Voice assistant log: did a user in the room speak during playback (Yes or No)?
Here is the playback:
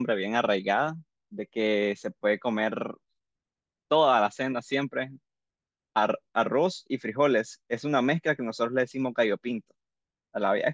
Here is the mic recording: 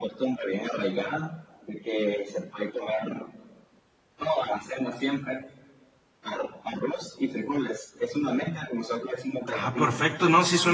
Yes